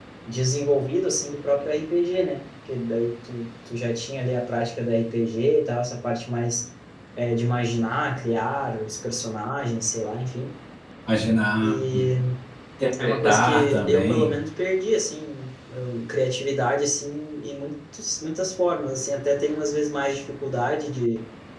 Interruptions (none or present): present